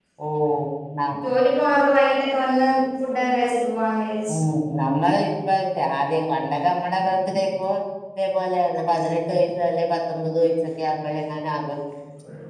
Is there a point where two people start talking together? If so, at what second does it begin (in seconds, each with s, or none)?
none